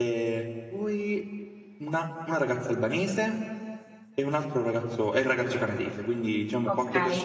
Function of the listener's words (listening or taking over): listening